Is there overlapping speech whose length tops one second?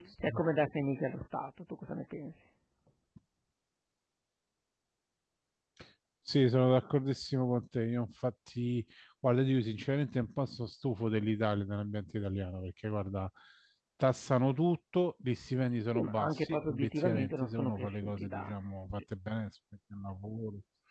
Yes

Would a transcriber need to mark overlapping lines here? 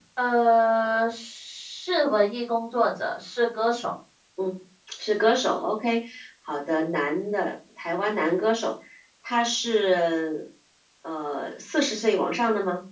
No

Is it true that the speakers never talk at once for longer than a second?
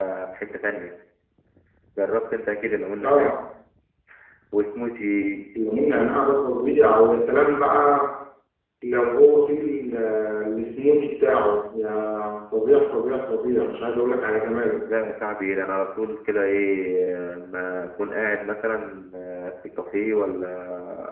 Yes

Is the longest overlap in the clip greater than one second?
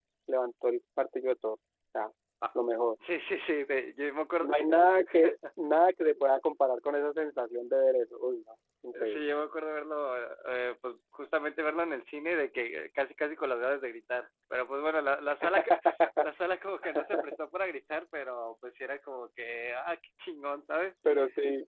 No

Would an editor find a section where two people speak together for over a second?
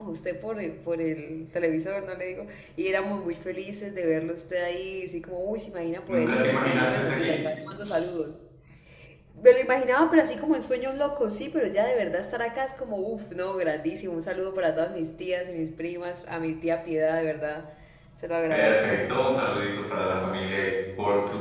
Yes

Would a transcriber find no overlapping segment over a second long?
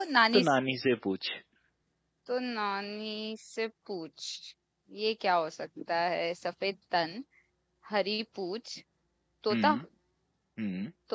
Yes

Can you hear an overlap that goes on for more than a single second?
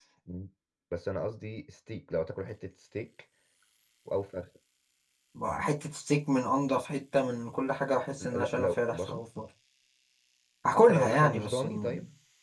Yes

